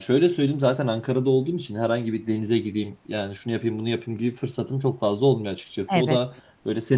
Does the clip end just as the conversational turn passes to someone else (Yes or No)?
No